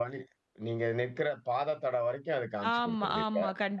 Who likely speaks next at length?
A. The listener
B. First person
A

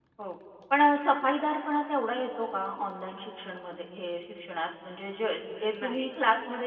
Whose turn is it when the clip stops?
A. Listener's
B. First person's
B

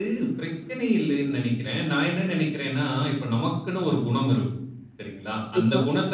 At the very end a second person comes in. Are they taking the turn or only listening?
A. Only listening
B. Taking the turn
A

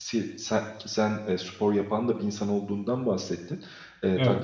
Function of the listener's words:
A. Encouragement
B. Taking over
A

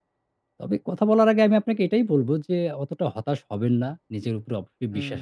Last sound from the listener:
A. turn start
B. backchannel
B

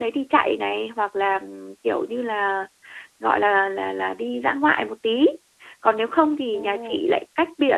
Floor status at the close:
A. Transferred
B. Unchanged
B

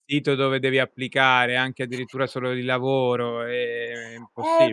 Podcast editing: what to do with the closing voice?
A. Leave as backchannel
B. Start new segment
B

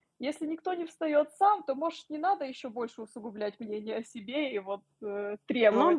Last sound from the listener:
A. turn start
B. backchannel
A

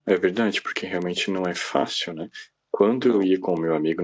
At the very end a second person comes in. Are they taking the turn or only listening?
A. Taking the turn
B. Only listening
B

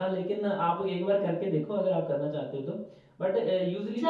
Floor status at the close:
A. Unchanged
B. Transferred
B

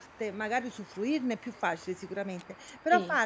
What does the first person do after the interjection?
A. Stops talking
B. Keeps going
B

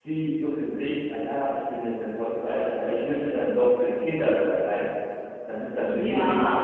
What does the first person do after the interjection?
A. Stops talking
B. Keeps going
A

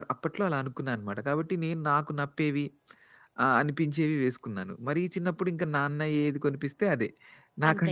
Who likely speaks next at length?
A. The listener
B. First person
B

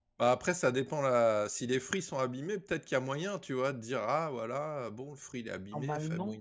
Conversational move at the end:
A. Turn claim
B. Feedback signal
A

